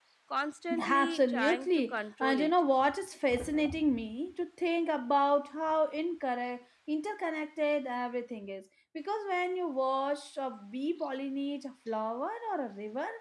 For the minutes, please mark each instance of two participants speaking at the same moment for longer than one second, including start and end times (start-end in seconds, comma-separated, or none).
0.8-2.5